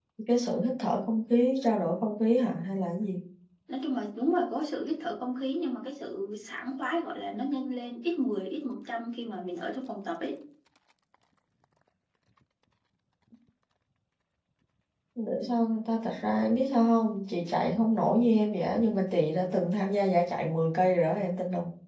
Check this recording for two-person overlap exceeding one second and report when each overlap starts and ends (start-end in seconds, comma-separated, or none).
none